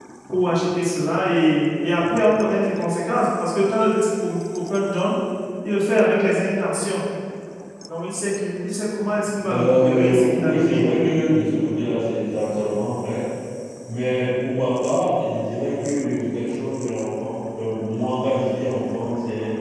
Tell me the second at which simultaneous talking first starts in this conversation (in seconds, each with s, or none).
9.4 s